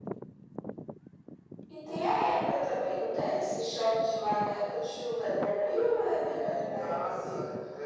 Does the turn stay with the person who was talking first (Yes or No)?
No